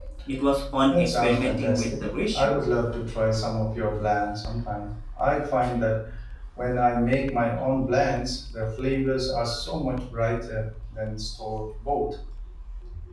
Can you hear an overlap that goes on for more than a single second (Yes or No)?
Yes